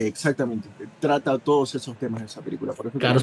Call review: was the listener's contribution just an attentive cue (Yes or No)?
No